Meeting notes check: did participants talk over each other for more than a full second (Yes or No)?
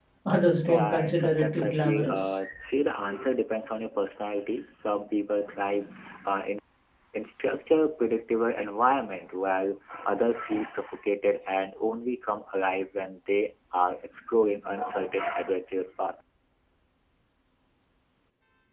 Yes